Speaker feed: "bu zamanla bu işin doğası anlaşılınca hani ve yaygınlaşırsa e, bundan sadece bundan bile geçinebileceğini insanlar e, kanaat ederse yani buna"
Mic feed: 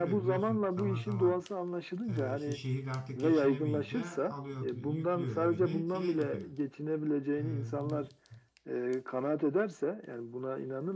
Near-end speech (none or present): present